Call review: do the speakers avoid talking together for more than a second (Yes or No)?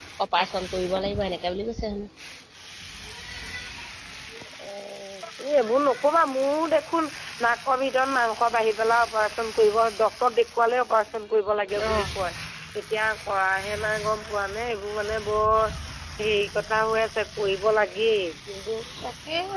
Yes